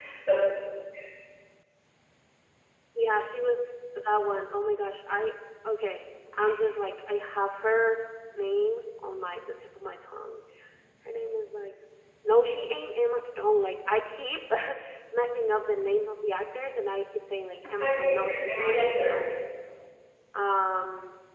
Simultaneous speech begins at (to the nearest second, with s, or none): 18 s